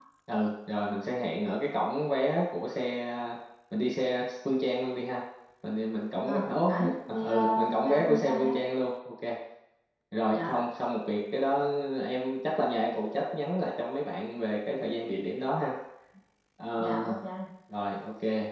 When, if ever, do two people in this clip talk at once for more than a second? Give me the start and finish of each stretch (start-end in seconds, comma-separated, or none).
6.2-8.5